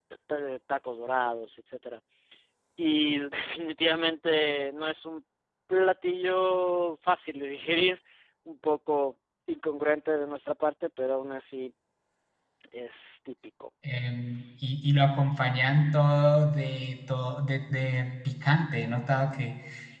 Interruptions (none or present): none